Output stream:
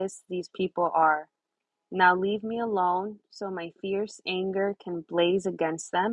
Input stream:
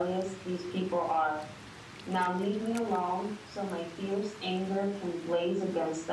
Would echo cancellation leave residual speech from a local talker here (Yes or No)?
No